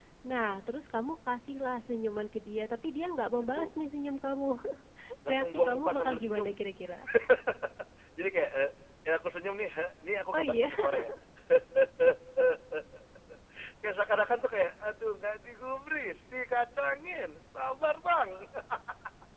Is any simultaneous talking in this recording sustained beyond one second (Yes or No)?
Yes